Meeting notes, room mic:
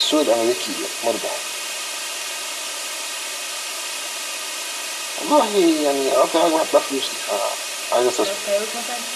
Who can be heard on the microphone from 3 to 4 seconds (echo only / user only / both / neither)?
neither